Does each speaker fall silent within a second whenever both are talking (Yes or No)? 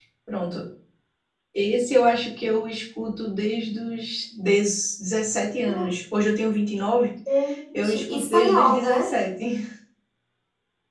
No